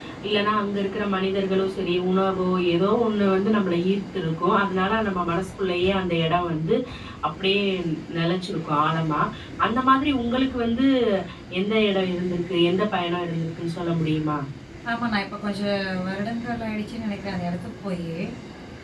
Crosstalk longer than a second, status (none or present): none